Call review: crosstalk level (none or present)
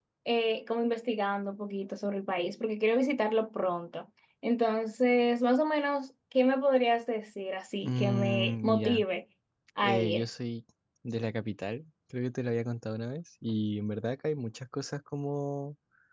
present